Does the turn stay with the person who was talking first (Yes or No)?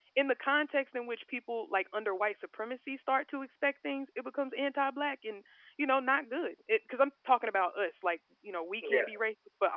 Yes